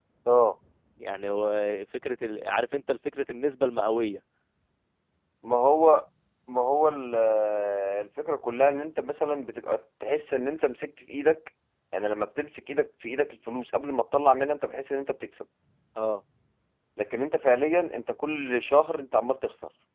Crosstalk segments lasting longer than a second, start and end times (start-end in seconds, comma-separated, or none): none